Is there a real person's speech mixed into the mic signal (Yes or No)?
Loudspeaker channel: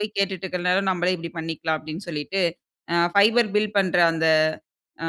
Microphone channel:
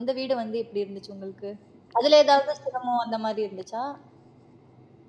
Yes